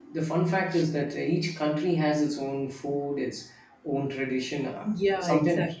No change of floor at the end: No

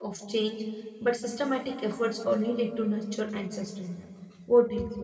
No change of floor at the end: No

